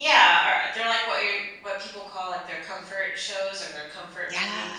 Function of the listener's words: taking over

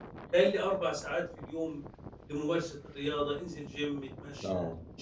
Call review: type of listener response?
listening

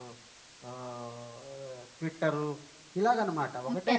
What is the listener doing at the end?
taking over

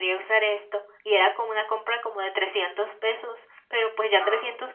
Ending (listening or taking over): listening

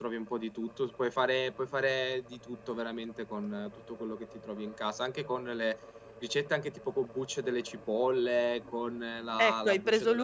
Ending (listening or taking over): taking over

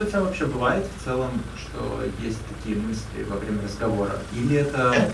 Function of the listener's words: listening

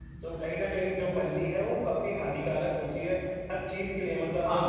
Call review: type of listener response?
listening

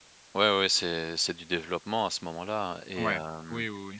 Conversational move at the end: taking over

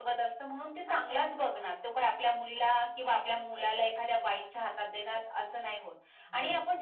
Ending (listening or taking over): listening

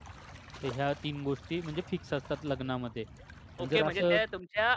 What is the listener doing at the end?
taking over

